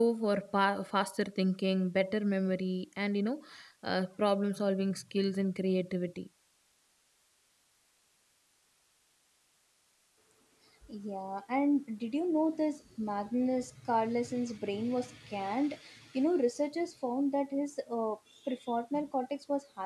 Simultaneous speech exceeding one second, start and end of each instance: none

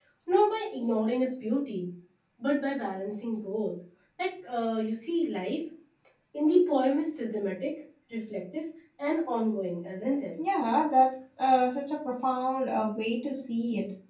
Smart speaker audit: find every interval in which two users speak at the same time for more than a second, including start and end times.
none

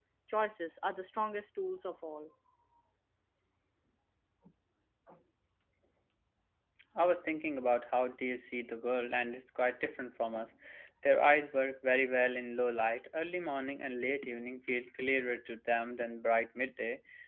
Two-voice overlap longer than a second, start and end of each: none

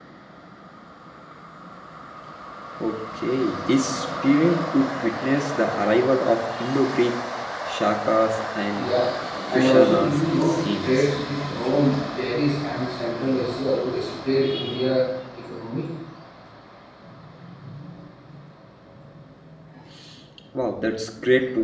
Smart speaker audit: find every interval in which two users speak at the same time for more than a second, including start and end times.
9.6-11.1

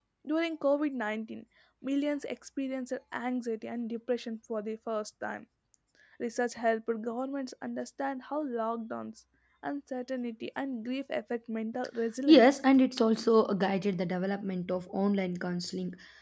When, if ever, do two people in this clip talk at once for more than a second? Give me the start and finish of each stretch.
none

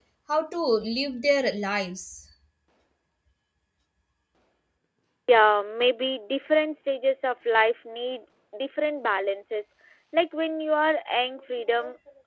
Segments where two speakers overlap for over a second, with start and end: none

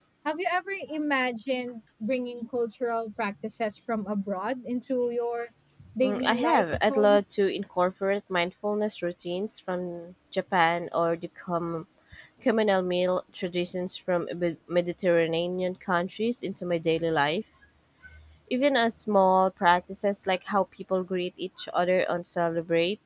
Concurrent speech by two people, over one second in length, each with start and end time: 6.0-7.2

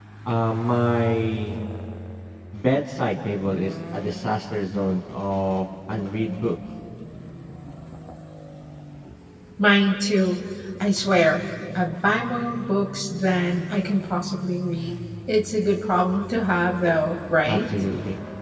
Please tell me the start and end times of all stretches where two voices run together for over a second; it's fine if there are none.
none

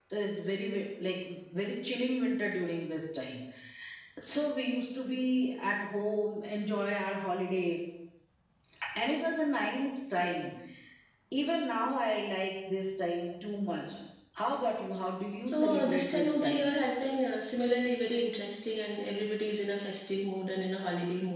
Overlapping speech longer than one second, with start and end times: 15.4-16.7

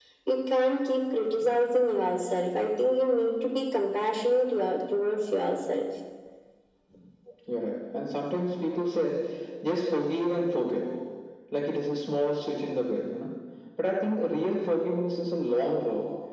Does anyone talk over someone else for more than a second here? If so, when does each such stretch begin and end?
none

